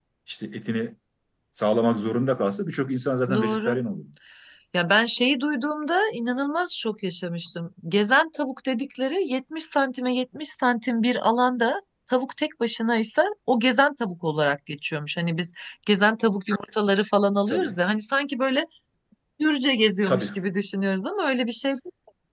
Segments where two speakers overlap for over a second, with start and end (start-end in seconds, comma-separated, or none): none